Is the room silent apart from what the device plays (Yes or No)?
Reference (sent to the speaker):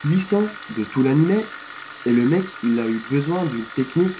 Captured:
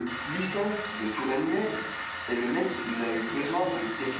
No